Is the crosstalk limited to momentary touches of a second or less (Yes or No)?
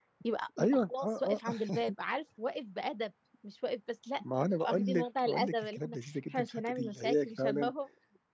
No